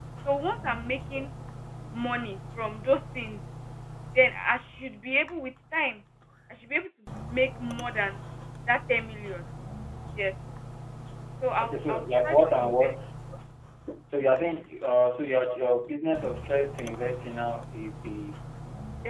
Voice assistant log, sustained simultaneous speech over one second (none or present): present